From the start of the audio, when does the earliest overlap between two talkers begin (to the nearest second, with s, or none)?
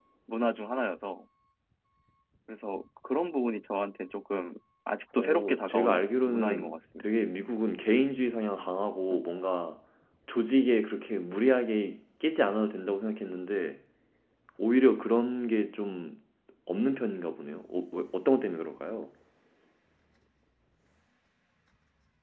5 s